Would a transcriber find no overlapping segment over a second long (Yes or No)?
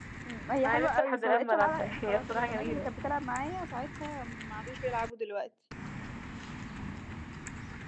No